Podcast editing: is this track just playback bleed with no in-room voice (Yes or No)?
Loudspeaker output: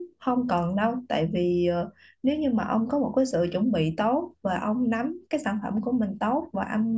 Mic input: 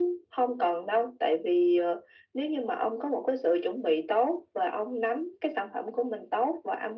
Yes